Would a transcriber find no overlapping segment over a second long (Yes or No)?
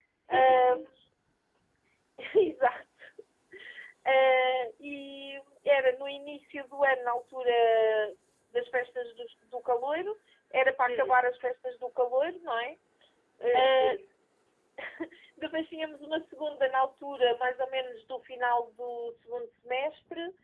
Yes